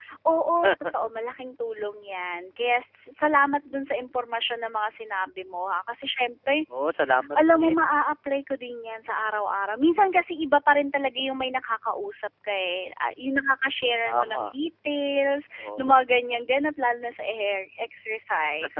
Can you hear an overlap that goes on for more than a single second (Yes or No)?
No